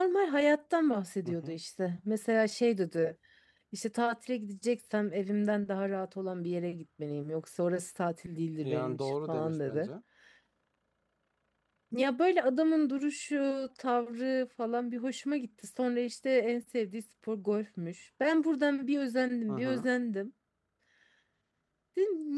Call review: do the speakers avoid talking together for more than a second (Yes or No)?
No